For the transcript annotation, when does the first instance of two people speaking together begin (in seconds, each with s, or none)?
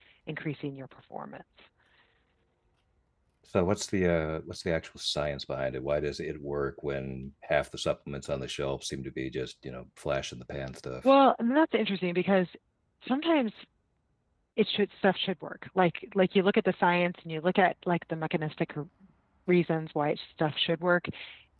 none